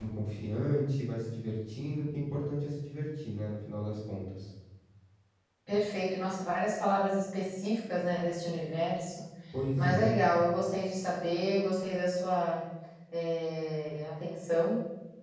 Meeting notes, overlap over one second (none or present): none